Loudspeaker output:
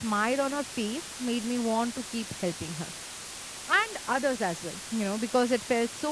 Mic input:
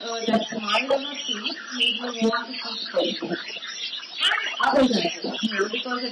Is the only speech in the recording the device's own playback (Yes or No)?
Yes